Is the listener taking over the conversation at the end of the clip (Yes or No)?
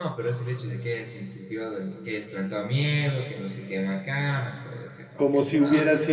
Yes